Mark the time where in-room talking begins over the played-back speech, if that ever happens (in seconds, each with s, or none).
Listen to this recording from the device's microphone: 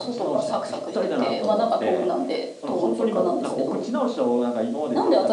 none